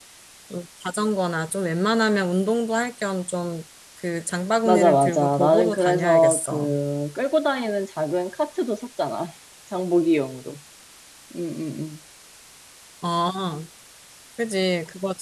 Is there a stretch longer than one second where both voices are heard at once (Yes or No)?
Yes